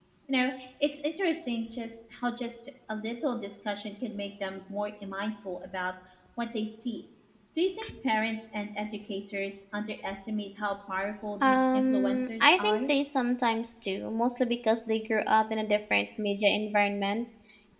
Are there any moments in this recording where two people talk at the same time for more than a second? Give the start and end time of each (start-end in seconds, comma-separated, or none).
11.4-12.8